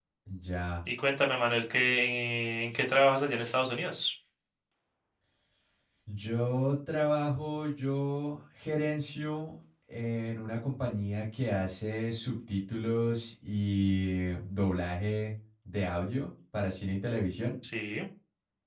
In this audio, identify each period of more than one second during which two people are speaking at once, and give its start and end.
none

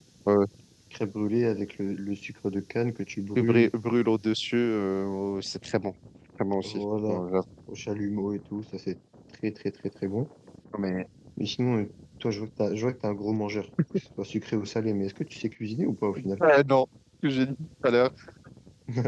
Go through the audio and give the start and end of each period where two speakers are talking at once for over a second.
none

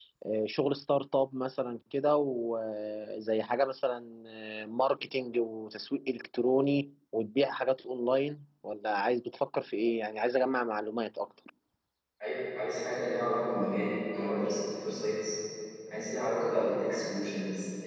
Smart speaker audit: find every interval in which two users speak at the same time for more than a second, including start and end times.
none

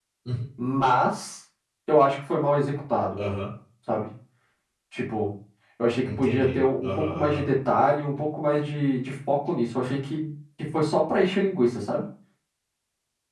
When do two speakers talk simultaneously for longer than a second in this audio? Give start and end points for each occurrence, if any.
6.1-7.4

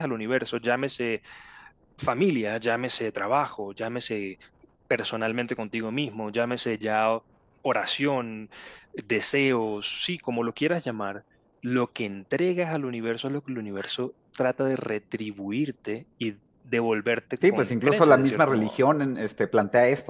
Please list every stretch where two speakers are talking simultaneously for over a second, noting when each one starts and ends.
17.5-18.8

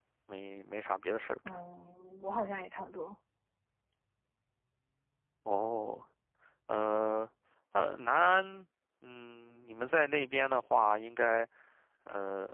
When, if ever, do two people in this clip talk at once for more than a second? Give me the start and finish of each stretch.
none

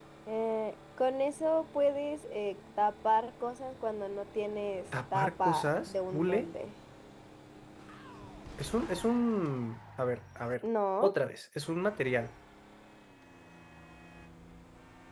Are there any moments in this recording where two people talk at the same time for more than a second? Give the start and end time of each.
5.1-6.4

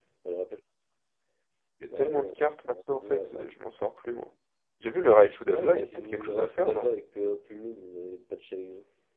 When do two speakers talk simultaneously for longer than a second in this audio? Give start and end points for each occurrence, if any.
5.5-6.9

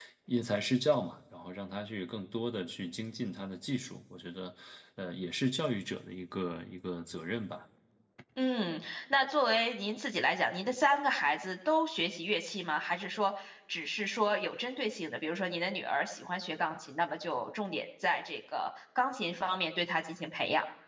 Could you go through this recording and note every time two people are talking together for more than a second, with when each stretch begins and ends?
none

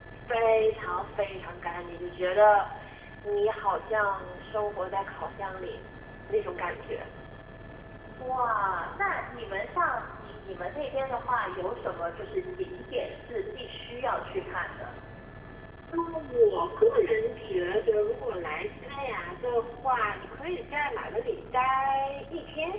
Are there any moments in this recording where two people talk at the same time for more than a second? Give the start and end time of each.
none

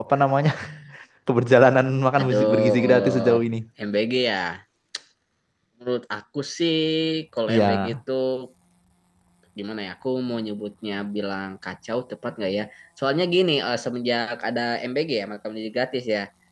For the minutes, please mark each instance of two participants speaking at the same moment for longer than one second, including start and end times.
2.2-3.4

